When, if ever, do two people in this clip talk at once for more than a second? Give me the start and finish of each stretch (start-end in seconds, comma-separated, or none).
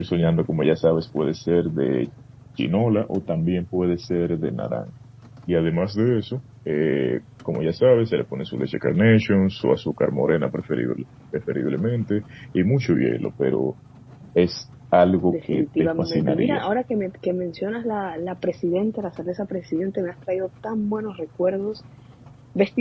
15.3-16.6